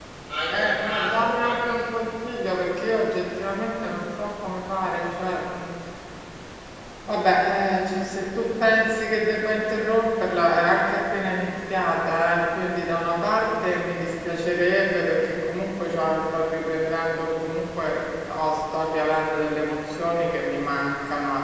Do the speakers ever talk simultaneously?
Yes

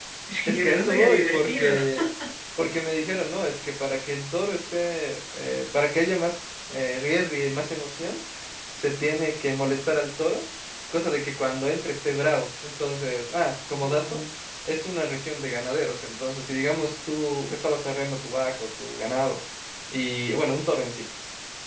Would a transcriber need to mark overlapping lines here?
Yes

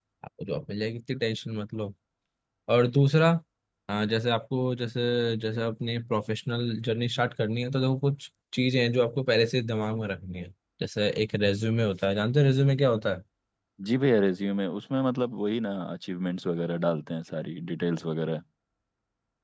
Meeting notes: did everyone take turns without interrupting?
Yes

